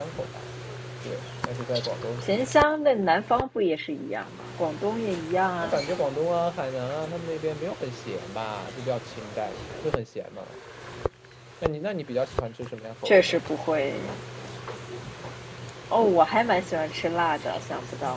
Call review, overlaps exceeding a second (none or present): none